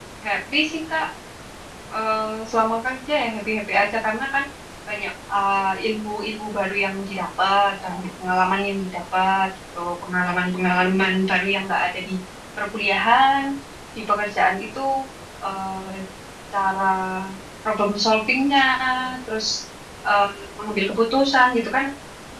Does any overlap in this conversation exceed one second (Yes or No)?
No